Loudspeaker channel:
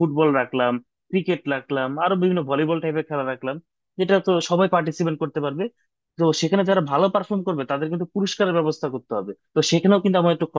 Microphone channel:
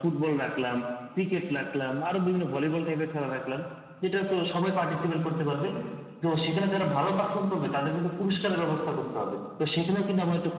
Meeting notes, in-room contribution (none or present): none